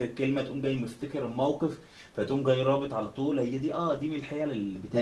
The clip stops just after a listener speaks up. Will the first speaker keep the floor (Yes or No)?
Yes